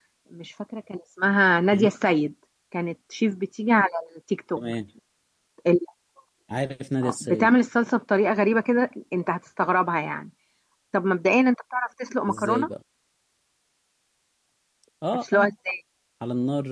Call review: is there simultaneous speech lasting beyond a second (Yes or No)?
No